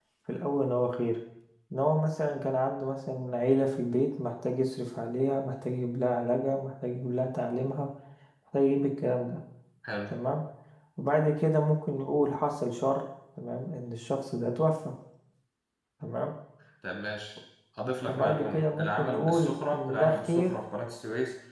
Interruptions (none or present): present